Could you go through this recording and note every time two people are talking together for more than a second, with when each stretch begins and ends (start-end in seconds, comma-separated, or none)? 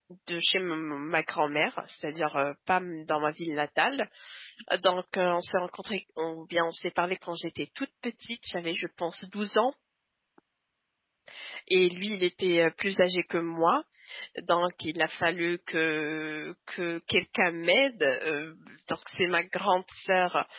none